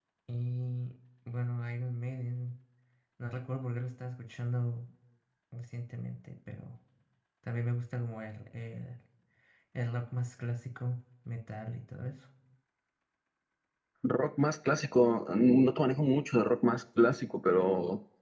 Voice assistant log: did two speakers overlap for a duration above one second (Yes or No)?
No